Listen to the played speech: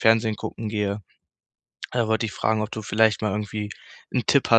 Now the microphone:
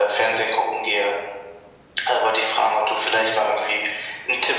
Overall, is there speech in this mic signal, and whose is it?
echo only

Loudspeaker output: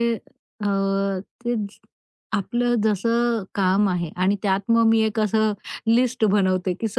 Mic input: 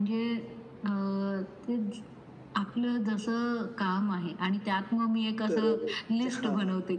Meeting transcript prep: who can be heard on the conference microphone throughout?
both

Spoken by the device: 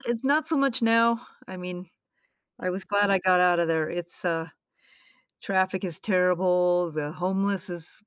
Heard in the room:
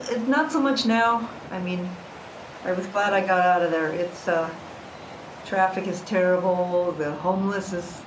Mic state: echo only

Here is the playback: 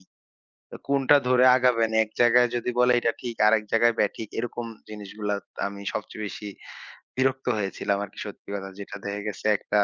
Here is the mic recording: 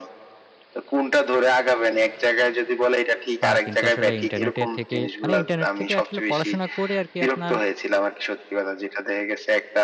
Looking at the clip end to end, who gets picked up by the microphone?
both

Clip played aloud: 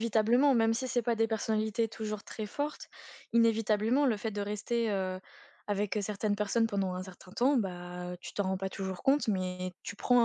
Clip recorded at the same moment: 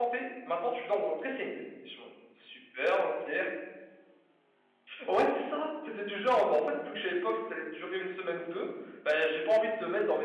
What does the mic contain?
user only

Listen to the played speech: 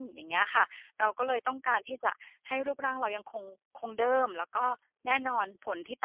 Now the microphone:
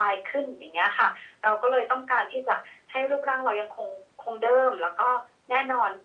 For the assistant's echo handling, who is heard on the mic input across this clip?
echo only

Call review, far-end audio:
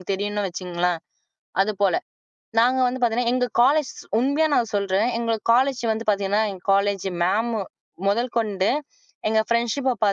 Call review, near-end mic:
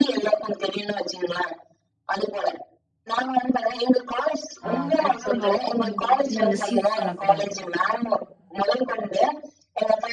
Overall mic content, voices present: both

